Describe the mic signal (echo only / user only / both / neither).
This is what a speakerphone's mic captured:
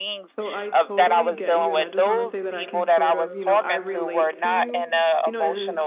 both